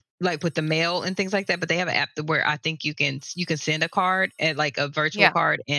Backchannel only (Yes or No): Yes